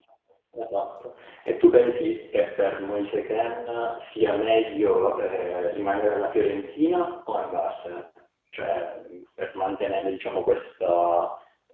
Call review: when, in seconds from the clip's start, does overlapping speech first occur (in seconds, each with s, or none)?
none